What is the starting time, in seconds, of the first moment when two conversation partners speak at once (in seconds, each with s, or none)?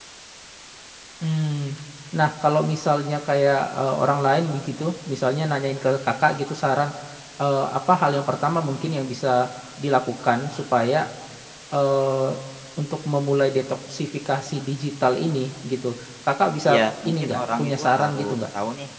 16.6 s